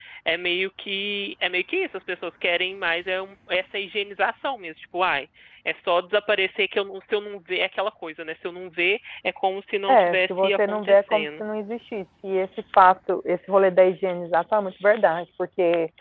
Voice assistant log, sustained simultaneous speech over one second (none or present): present